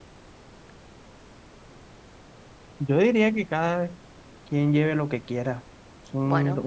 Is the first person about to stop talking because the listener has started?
No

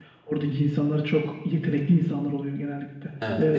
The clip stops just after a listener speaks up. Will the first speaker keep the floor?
No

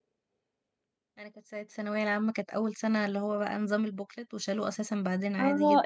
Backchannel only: No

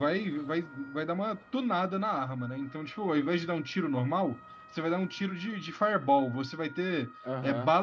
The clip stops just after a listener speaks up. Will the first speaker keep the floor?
Yes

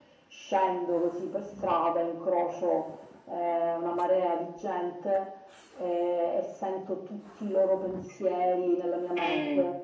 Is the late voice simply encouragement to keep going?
Yes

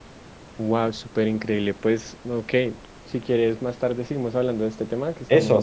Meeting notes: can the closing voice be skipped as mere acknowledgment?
No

